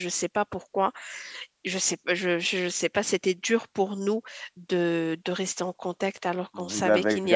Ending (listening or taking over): taking over